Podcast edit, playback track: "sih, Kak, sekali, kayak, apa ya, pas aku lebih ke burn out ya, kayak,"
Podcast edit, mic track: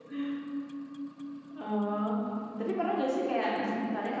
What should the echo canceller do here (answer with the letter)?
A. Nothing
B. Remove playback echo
A